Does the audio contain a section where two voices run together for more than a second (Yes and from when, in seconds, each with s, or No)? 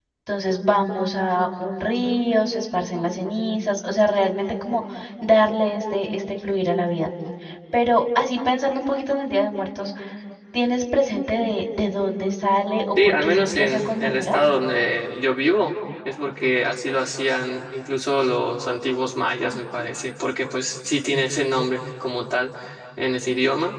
Yes, from 13.0 s